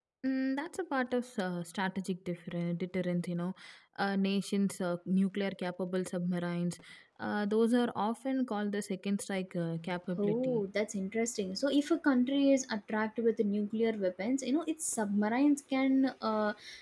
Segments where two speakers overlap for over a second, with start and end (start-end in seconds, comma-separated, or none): none